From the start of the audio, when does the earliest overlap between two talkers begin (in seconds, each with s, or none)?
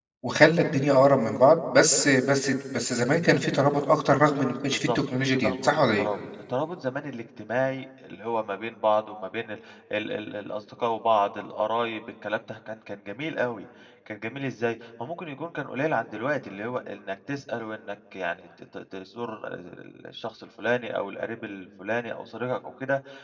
4.7 s